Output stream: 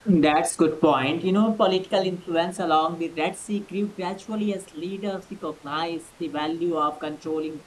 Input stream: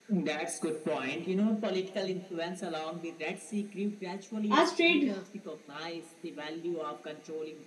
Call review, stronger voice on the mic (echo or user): user